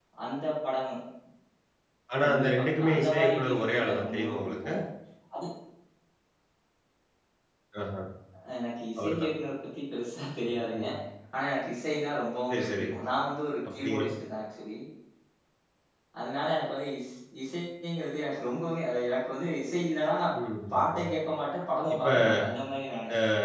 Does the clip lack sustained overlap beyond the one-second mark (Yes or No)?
No